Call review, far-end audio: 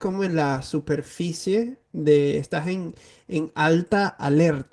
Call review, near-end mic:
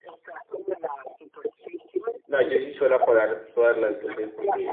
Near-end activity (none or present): present